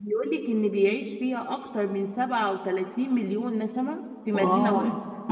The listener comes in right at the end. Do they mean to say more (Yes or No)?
Yes